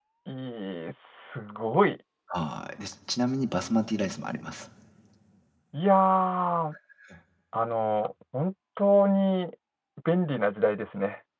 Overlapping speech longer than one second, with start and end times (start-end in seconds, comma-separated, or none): none